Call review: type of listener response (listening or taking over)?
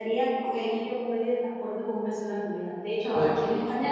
listening